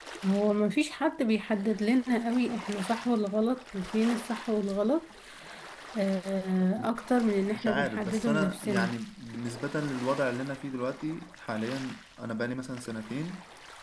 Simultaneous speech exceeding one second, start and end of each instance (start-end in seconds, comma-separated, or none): 7.4-8.9